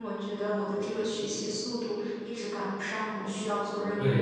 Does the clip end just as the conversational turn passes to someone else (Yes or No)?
Yes